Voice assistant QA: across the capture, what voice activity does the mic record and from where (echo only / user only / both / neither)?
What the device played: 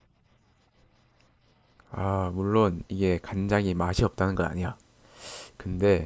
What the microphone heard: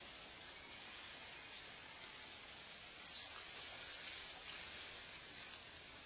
neither